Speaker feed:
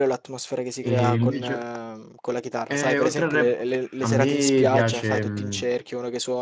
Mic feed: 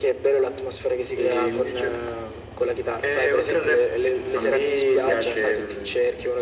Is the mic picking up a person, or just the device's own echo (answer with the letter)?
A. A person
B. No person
B